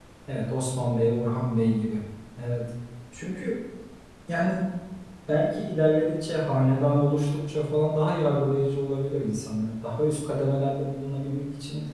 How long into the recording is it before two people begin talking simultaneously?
none

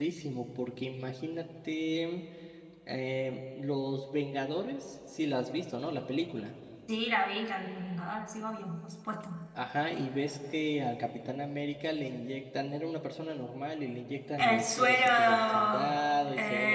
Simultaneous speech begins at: 14 s

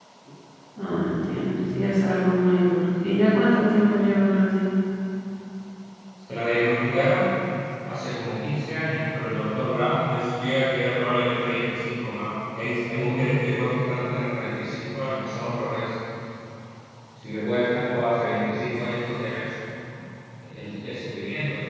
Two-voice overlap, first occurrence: none

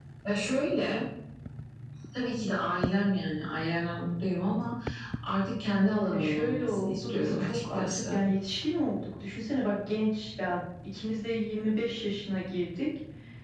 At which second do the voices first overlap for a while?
6 s

